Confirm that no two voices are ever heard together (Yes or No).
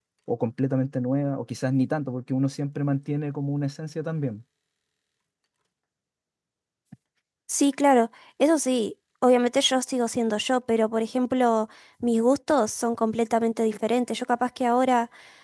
Yes